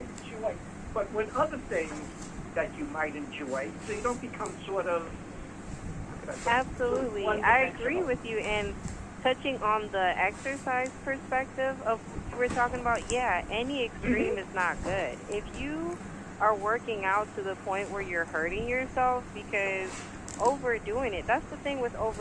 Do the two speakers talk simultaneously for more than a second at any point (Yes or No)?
Yes